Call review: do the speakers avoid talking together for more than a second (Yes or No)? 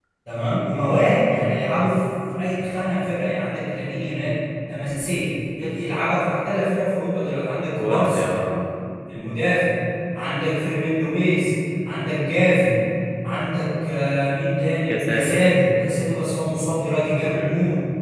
Yes